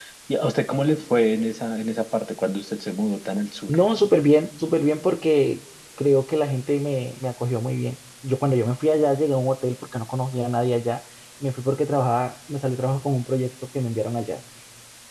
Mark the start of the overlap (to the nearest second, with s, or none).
none